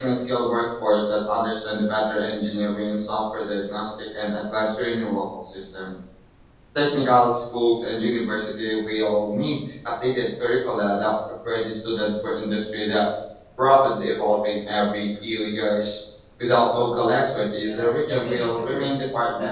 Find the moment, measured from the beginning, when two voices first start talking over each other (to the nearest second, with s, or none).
18 s